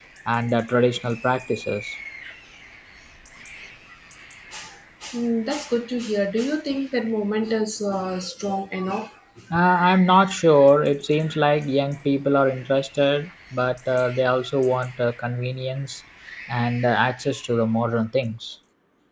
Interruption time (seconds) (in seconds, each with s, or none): none